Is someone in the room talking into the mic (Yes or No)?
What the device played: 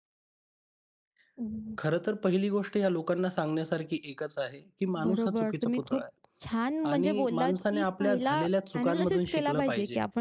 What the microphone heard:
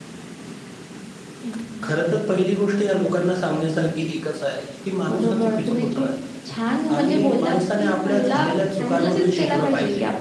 No